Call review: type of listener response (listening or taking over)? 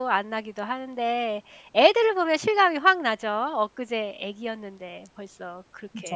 taking over